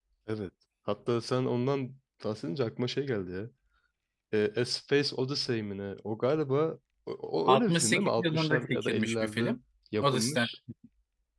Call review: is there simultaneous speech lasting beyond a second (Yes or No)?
Yes